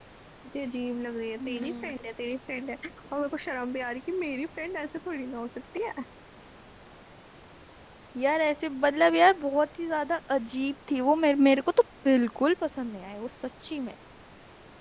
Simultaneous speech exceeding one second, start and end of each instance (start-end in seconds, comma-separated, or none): none